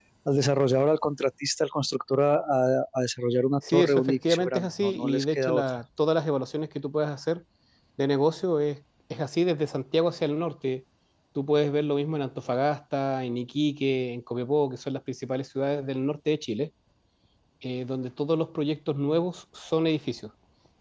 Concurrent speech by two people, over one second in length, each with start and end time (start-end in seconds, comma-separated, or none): 3.7-5.6